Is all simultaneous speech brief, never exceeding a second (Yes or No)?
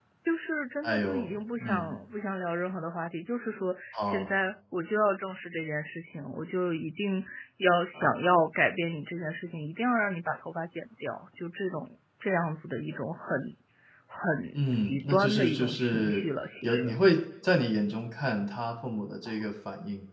No